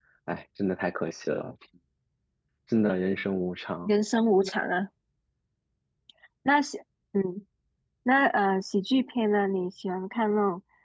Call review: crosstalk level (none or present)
none